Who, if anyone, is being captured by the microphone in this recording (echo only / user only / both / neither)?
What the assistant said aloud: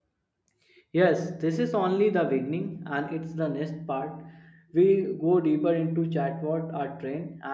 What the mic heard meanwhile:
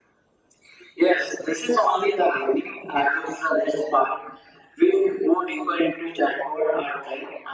echo only